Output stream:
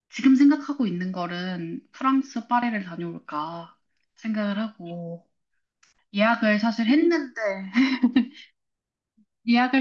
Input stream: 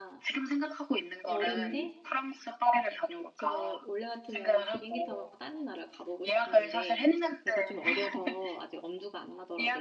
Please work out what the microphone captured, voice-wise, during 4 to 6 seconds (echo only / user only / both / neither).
both